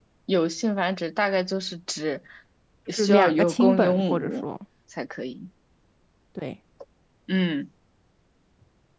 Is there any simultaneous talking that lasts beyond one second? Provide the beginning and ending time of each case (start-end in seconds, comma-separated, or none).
3.0-4.4